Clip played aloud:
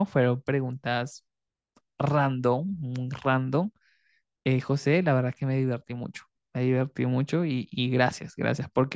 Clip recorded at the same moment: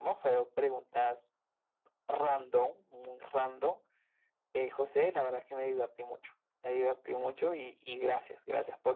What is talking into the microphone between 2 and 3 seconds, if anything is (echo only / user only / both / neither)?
echo only